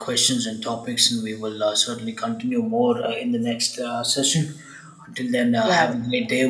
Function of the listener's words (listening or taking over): listening